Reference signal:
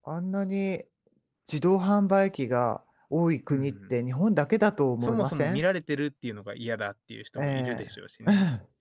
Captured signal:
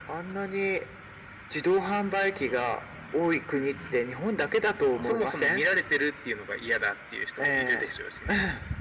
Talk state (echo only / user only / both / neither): echo only